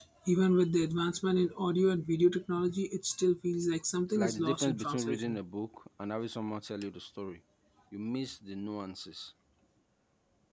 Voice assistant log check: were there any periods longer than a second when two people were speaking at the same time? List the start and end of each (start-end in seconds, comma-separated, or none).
4.1-5.4